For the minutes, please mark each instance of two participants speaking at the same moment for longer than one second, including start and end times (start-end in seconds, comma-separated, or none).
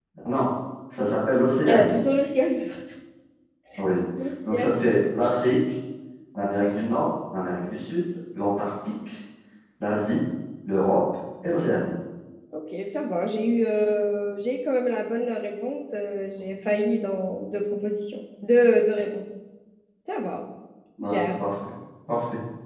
none